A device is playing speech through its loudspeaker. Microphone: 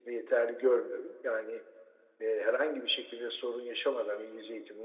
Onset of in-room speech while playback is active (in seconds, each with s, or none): none